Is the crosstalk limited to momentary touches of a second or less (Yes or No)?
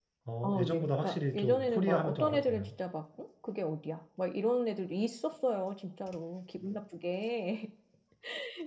No